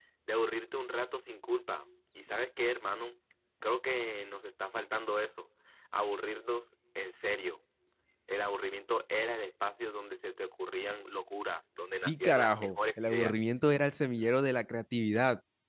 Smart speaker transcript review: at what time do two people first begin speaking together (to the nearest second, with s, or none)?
12 s